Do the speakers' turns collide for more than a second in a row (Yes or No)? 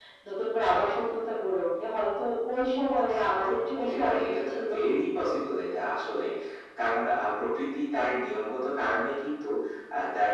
Yes